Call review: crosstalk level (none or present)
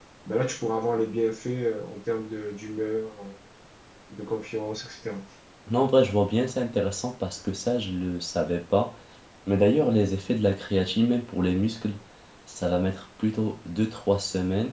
none